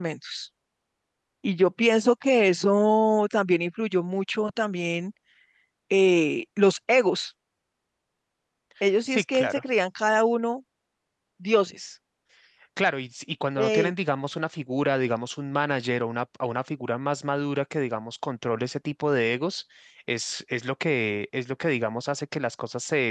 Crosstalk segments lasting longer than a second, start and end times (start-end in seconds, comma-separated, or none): none